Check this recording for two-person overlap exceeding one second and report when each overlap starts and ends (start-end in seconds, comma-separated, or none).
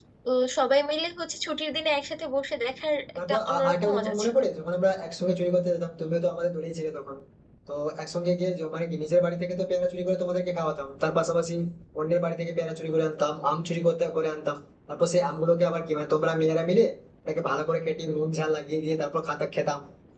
3.2-4.4